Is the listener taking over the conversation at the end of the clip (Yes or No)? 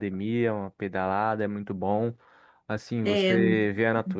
No